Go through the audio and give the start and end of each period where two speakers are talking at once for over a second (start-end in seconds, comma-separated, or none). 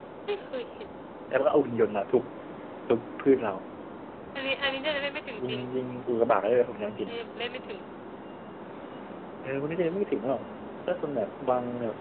none